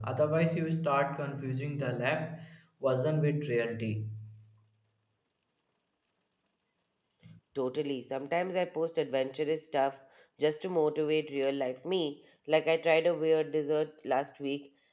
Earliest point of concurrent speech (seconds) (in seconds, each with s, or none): none